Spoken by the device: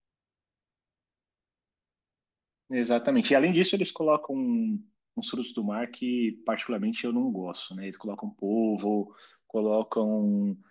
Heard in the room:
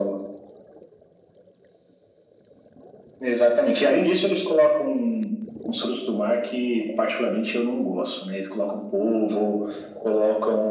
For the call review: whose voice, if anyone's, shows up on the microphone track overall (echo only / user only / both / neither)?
echo only